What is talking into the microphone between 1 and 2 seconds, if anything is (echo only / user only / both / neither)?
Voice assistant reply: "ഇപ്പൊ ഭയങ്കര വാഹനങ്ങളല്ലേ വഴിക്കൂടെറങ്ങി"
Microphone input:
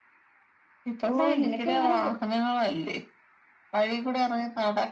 both